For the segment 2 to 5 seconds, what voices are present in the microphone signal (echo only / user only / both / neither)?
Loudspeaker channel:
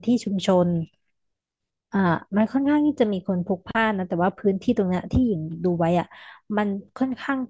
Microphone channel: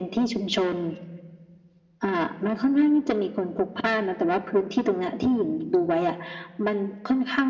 echo only